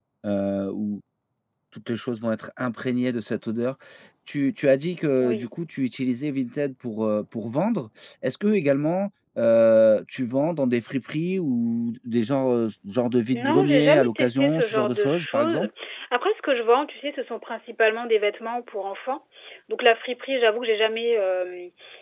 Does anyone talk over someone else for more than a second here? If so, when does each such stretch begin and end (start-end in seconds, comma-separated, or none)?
13.3-15.7